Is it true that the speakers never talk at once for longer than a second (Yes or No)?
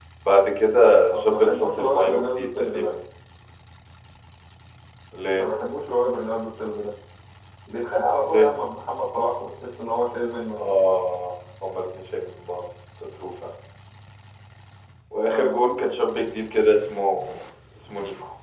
No